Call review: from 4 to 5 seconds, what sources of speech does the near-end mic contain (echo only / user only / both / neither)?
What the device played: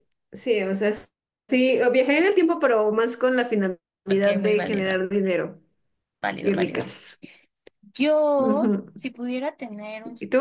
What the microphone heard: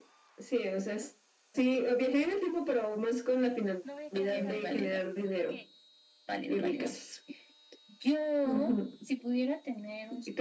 both